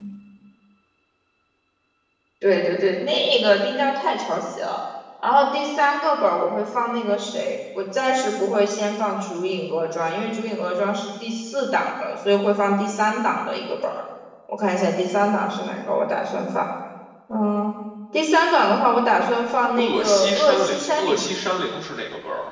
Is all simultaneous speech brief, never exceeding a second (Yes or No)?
No